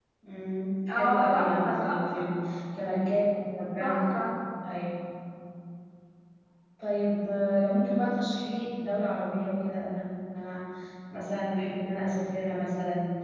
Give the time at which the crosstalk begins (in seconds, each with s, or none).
0.9 s